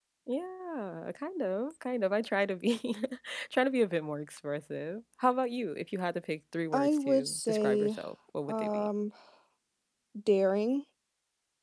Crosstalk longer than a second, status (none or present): present